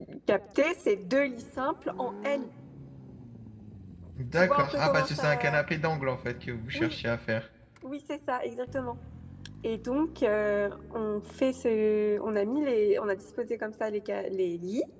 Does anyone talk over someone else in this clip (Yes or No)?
Yes